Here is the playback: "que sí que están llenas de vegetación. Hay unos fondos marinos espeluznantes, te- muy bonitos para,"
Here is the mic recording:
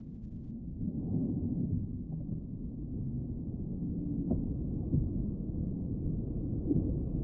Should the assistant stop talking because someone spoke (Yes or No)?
No